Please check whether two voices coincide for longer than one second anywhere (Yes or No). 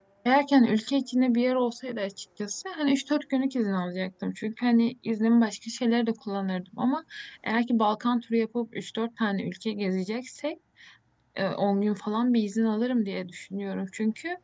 No